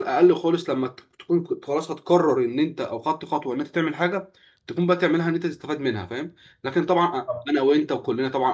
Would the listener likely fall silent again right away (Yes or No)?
Yes